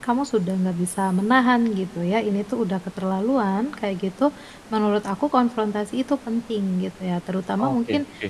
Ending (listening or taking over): listening